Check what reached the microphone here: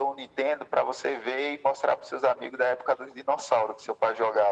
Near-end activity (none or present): none